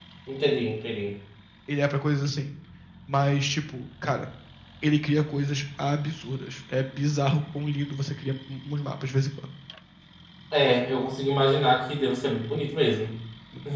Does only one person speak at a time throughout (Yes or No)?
Yes